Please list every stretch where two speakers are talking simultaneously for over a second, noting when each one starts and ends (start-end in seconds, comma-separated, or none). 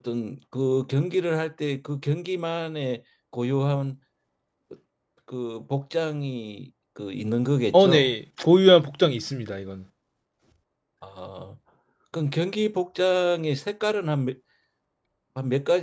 none